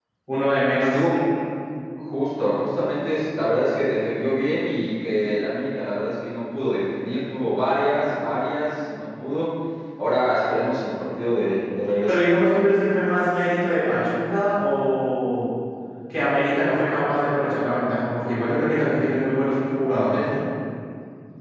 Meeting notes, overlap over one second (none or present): none